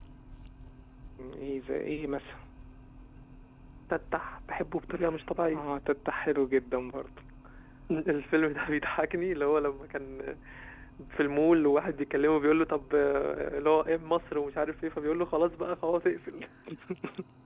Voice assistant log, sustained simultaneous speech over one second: none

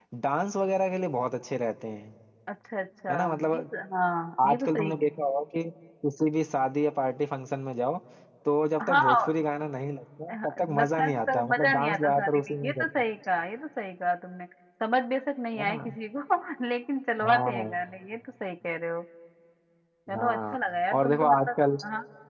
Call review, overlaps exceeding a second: present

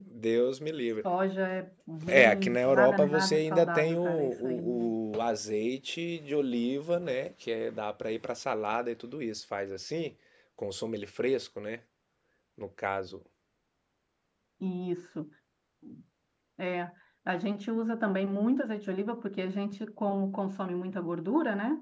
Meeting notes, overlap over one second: present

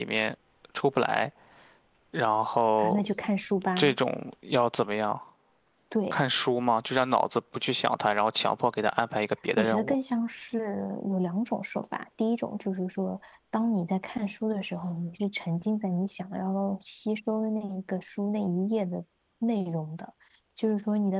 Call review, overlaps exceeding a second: none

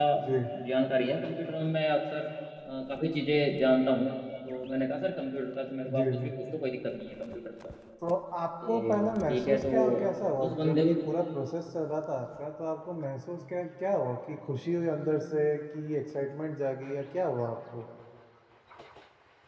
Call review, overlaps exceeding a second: present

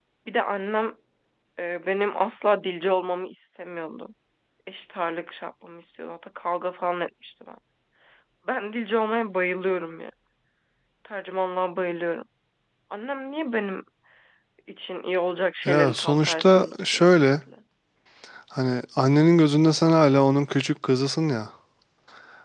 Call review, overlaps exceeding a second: present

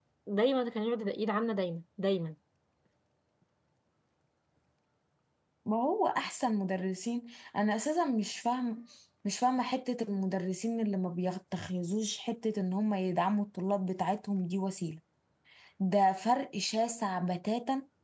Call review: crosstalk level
none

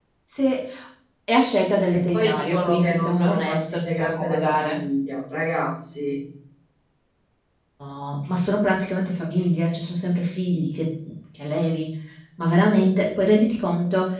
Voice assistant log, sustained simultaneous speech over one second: present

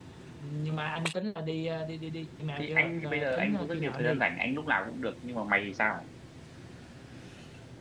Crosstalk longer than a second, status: present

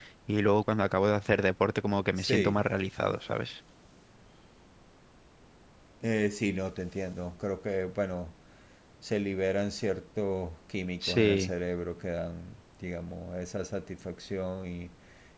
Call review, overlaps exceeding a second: none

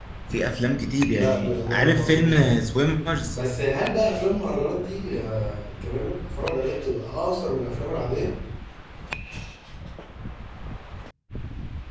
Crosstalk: present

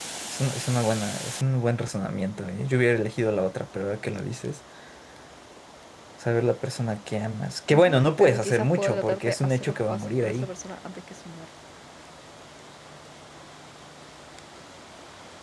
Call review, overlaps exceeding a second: present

